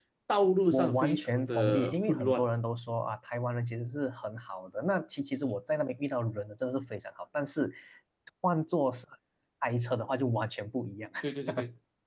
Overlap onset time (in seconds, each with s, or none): 0.7 s